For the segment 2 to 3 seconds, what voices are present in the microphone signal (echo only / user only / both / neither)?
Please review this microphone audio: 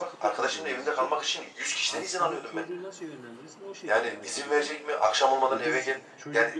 both